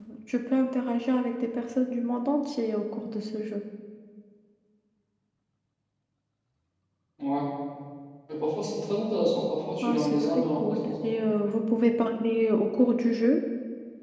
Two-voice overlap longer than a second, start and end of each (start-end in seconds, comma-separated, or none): 9.8-11.1